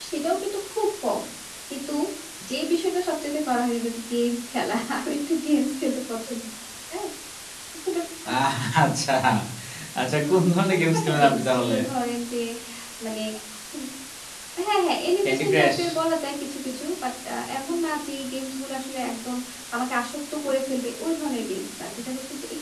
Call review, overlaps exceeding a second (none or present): present